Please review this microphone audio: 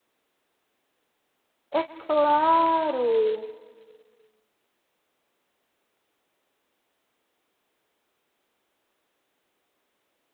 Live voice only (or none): É claro.